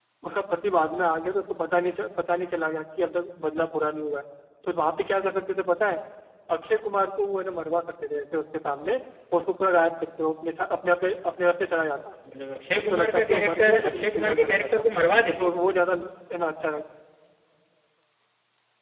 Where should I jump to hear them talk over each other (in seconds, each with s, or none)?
12.8 s